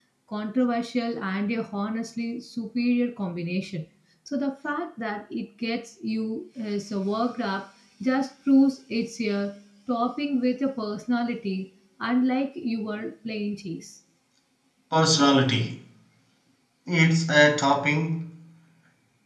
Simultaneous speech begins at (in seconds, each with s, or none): none